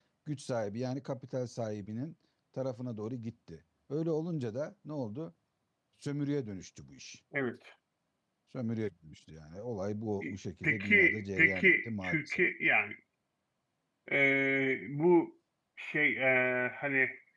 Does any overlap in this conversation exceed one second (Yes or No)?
Yes